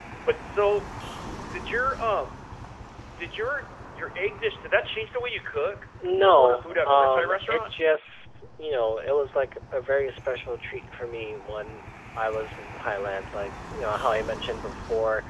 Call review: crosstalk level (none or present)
present